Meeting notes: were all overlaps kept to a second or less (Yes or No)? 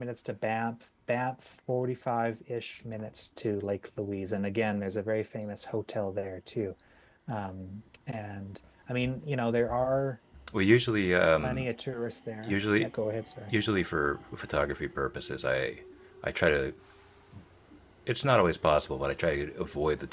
Yes